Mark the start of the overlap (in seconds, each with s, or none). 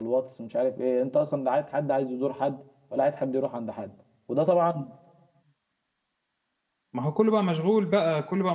none